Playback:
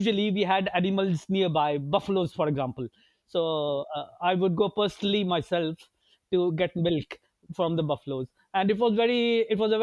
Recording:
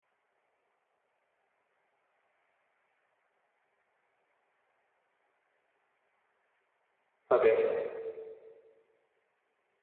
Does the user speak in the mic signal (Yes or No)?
Yes